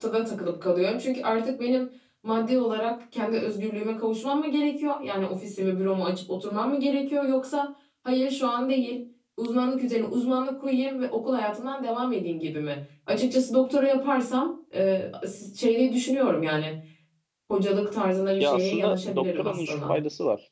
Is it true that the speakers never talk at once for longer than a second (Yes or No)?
No